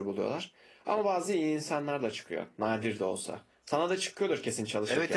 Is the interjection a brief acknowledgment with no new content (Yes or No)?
No